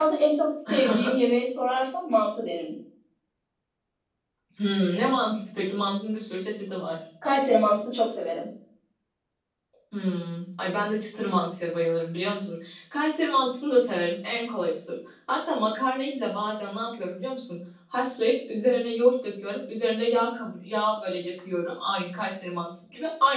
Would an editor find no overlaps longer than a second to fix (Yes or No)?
Yes